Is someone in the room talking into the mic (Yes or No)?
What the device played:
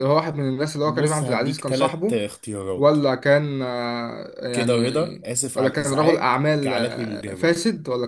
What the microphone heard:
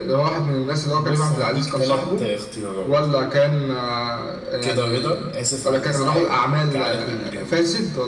No